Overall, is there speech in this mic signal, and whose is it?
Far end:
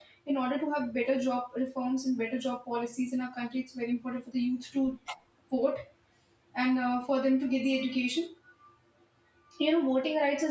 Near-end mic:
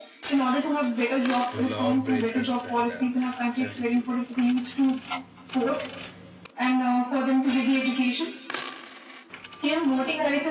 both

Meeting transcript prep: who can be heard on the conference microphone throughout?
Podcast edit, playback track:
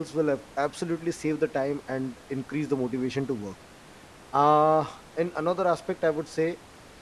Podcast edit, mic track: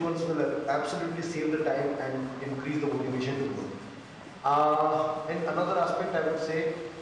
echo only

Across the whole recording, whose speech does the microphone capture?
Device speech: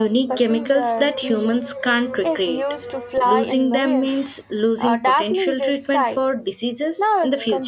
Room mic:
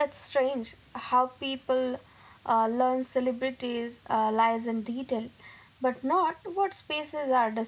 user only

